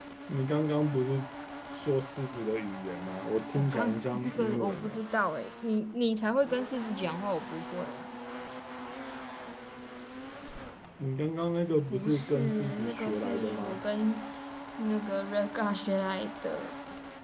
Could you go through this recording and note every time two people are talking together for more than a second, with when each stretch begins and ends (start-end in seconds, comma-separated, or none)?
3.5-4.9, 11.9-13.8